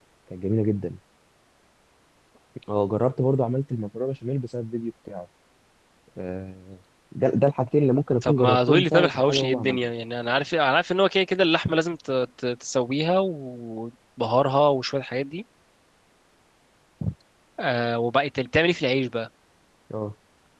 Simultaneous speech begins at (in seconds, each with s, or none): 8.2 s